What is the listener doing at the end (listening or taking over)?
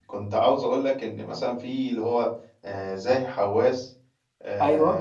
listening